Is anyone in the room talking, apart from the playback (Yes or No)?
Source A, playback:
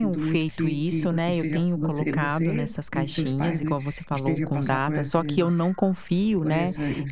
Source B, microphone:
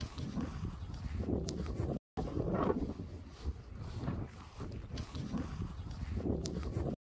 No